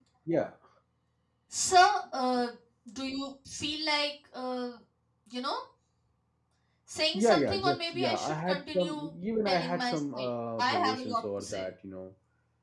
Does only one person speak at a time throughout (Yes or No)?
No